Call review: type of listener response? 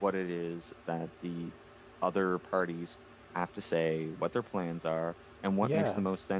listening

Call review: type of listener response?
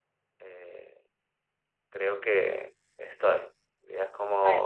listening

